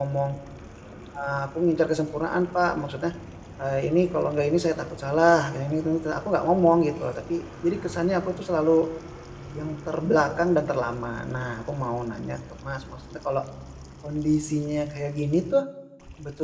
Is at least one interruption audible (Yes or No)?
No